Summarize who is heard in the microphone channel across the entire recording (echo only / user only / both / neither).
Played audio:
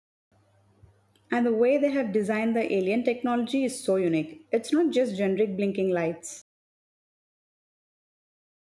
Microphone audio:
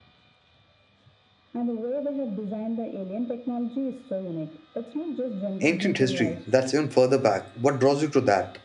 both